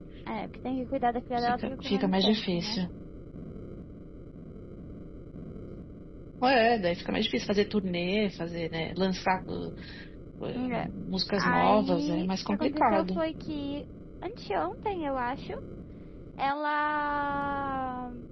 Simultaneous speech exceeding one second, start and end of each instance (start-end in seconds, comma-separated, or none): 1.4-2.8, 11.4-13.2